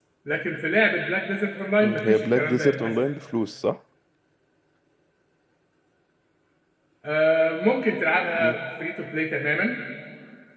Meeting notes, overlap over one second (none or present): present